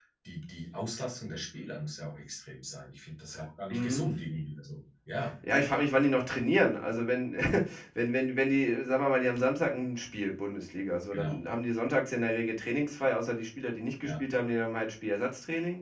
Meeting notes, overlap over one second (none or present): none